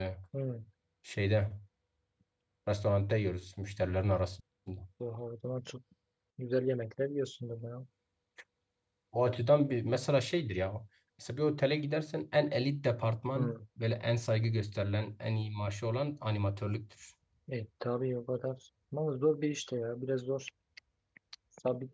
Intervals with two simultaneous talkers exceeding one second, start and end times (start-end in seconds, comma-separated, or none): none